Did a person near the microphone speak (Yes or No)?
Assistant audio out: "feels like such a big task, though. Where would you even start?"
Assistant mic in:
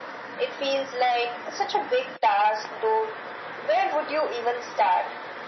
No